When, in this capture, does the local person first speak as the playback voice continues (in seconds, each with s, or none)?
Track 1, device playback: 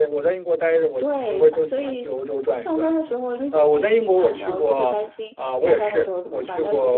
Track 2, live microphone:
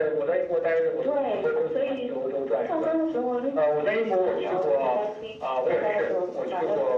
none